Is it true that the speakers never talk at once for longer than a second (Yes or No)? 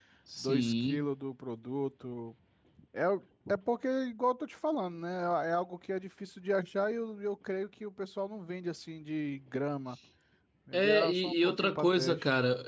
No